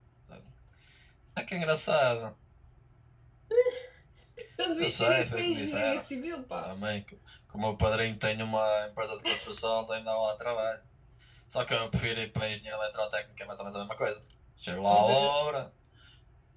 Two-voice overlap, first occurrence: 4.8 s

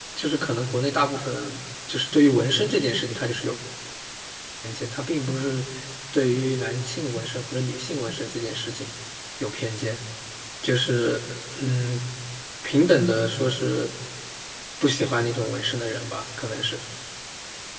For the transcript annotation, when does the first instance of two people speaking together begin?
none

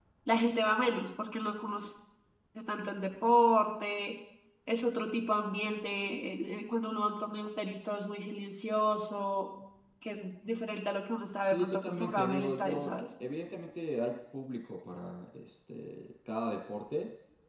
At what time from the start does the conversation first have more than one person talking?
11.4 s

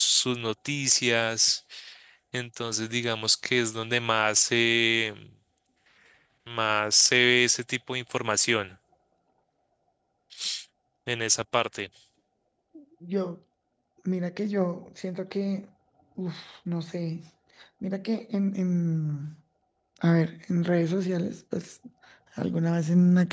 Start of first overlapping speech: none

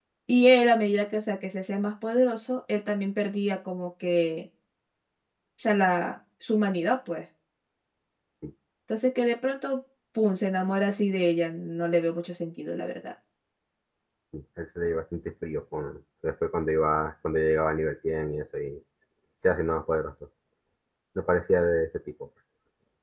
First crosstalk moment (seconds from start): none

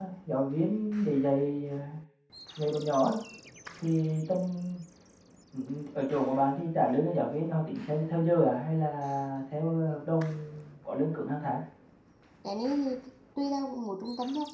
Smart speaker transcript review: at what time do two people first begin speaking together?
none

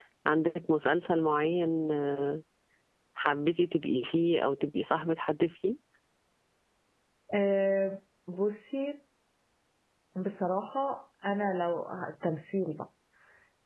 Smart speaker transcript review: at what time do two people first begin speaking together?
none

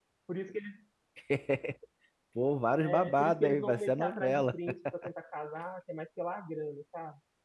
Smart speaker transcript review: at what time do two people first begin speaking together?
2.8 s

